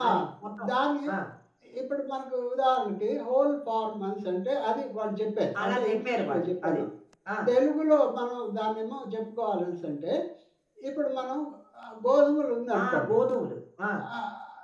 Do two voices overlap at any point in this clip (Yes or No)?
Yes